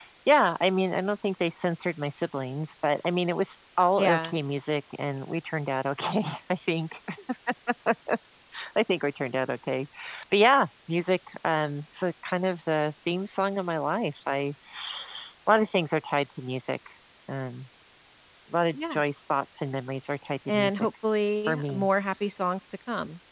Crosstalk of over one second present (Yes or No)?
No